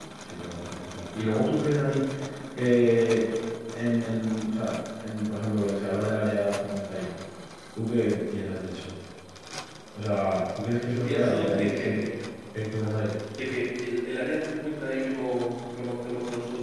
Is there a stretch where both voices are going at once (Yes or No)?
Yes